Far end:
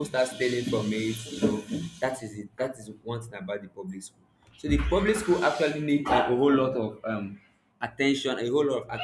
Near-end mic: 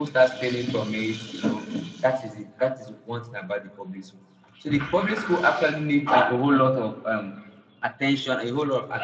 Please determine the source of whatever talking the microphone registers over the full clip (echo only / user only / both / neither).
echo only